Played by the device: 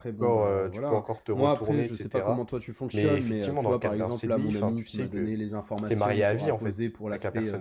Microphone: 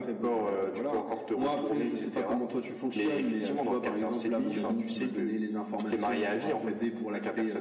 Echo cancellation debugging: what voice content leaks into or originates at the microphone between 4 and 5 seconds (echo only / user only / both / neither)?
echo only